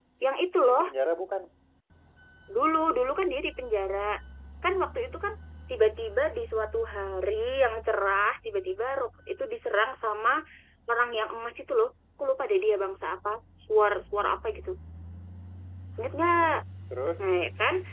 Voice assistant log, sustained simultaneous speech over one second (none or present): none